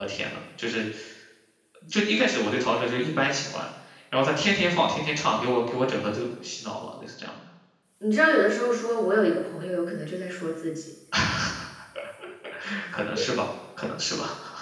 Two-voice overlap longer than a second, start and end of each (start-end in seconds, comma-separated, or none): none